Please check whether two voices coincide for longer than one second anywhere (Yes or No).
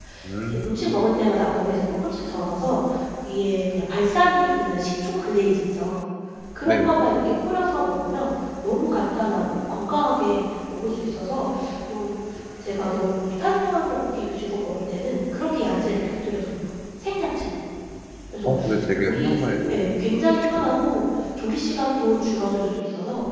No